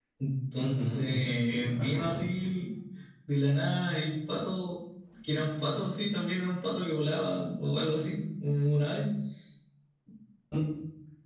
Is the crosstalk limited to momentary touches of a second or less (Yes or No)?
No